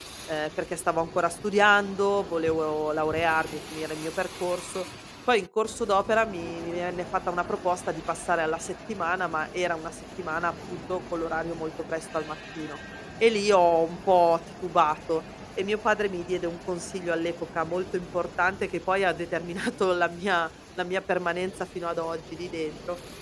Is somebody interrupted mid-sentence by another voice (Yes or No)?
No